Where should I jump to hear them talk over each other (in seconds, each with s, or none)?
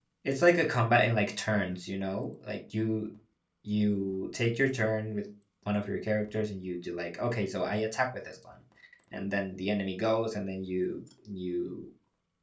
none